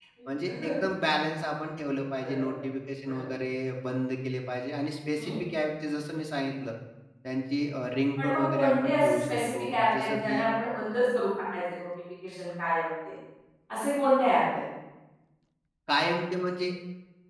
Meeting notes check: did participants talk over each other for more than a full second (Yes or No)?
Yes